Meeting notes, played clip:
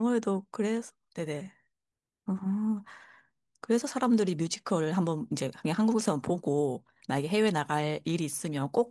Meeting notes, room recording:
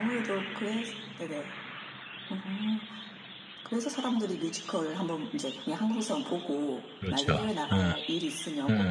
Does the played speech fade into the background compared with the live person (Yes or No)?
Yes